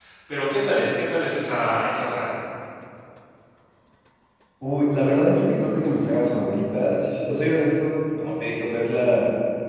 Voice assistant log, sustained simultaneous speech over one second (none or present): none